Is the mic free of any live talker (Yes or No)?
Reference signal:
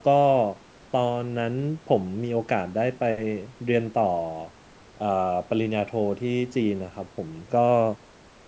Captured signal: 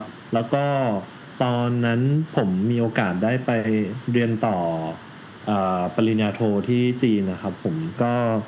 Yes